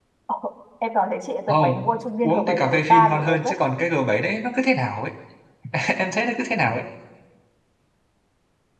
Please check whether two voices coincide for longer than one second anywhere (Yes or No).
Yes